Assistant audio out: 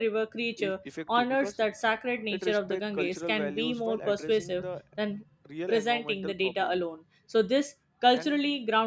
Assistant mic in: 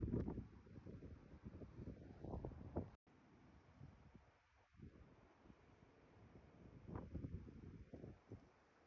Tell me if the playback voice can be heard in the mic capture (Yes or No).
No